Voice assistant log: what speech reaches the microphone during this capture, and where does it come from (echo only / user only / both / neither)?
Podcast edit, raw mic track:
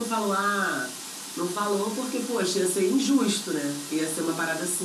echo only